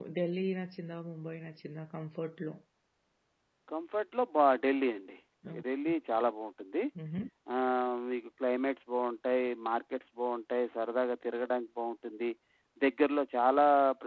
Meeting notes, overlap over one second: none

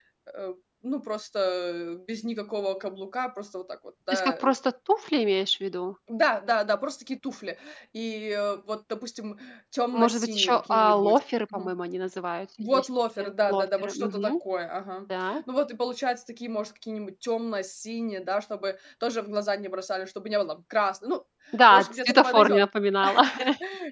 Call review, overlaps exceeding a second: present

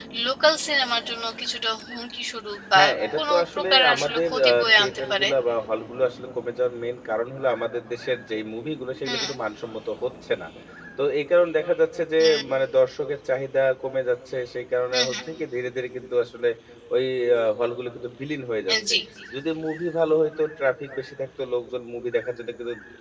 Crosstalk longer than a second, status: present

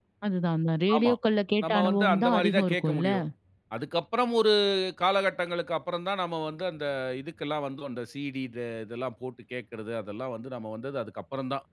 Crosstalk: present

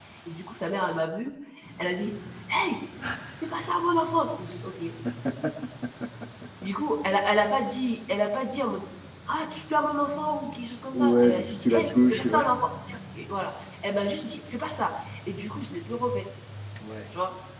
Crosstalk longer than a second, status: present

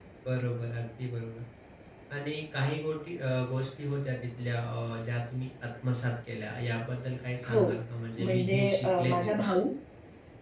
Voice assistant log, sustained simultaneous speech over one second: present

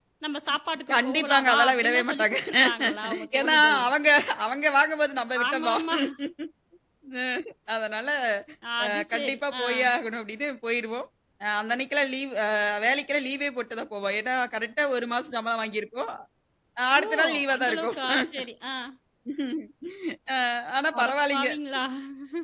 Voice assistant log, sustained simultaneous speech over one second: present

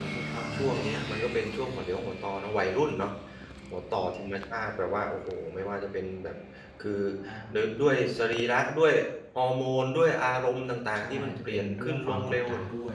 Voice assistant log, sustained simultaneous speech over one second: present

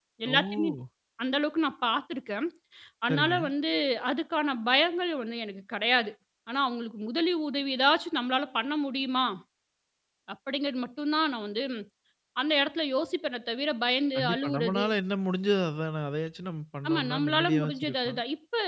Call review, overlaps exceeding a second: present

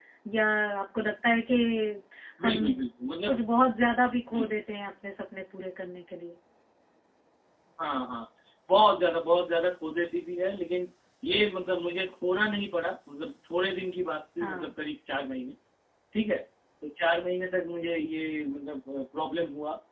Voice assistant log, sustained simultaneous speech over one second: none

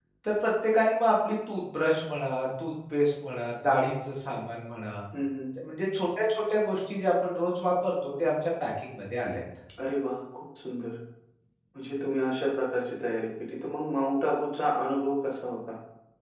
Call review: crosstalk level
none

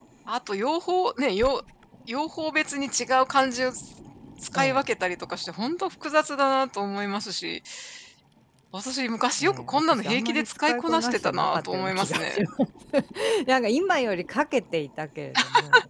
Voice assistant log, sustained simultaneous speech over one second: present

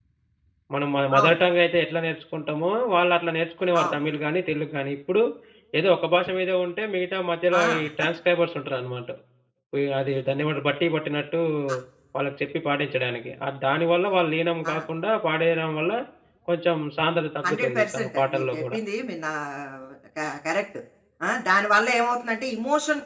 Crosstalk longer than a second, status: present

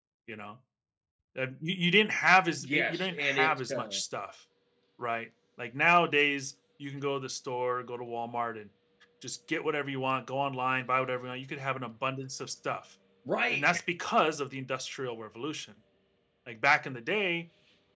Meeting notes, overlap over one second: present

